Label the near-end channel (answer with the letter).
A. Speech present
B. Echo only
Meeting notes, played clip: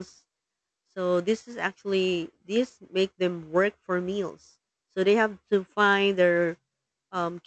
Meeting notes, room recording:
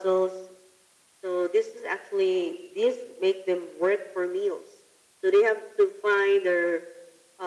B